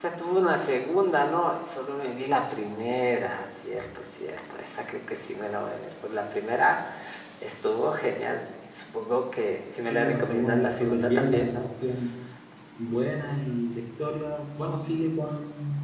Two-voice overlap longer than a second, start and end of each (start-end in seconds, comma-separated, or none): 9.9-11.7